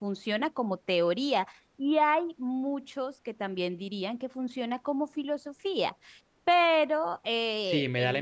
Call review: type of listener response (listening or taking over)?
taking over